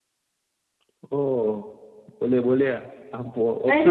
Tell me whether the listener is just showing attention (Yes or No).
No